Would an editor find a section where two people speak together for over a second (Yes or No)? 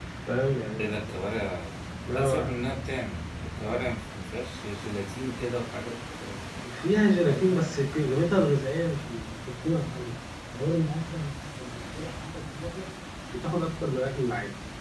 No